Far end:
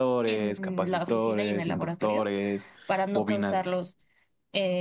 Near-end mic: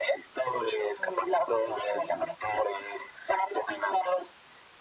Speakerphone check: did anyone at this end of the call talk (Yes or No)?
No